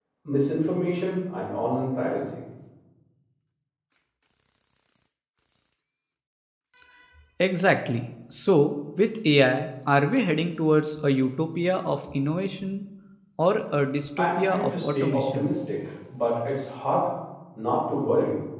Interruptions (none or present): present